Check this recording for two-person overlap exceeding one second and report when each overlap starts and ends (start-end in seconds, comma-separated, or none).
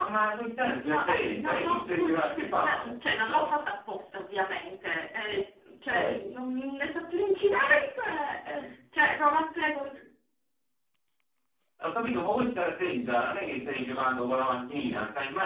0.6-3.6